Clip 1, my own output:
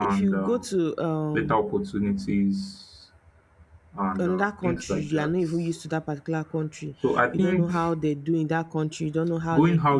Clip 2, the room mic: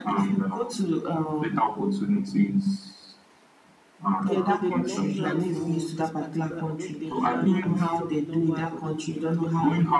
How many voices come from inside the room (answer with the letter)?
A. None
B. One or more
B